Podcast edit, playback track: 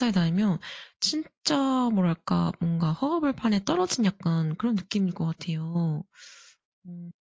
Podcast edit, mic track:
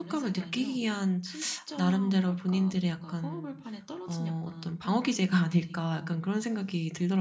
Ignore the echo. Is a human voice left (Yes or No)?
Yes